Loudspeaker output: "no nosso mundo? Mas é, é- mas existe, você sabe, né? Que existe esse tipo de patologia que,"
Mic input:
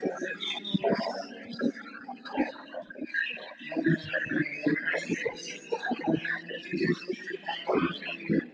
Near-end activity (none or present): none